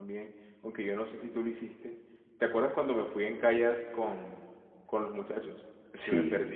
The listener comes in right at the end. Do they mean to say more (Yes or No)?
Yes